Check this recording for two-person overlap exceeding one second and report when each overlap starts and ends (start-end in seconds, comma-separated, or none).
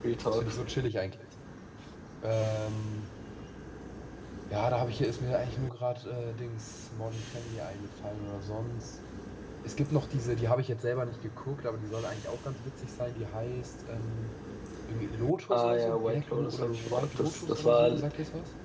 15.5-17.9